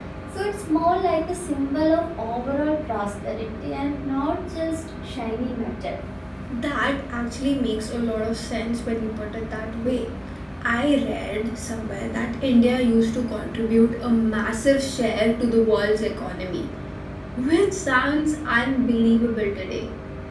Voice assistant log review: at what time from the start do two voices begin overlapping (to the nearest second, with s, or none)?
none